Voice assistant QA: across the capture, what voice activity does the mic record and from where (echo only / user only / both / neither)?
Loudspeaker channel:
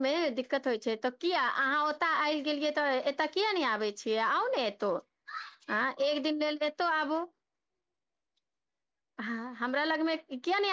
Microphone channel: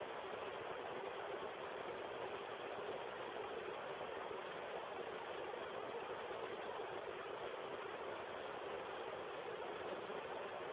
neither